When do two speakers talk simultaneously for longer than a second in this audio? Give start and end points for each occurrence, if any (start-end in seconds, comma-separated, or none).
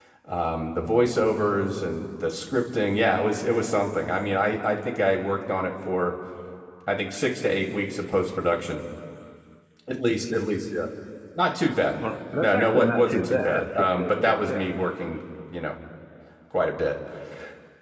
12.4-14.7